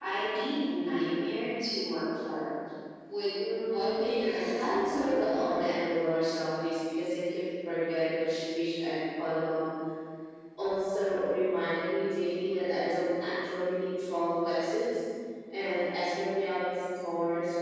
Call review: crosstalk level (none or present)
present